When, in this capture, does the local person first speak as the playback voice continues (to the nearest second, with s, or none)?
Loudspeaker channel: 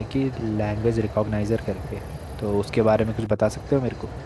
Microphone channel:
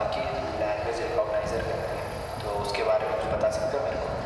none